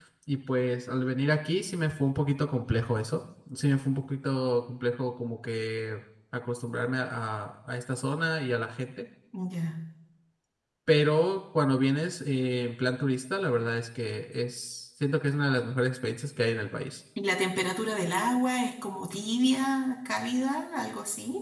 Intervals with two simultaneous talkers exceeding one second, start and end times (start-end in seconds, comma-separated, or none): none